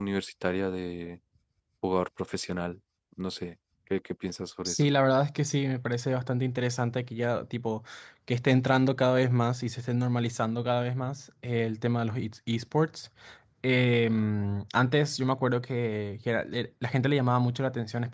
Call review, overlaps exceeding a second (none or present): none